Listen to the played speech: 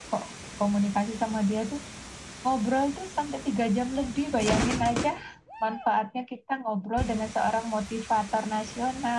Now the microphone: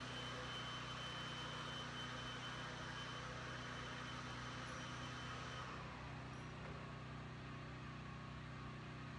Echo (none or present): none